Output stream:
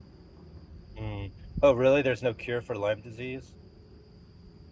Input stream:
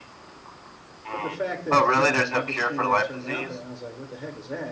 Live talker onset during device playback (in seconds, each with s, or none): 1.1 s